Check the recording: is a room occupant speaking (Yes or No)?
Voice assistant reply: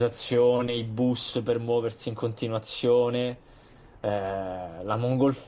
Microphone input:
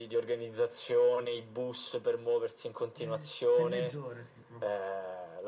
Yes